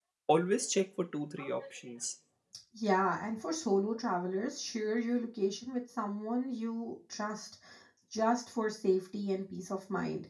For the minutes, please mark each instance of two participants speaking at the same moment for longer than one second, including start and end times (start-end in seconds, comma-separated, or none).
none